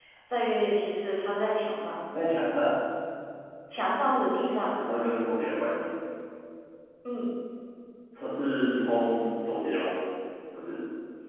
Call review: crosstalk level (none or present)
none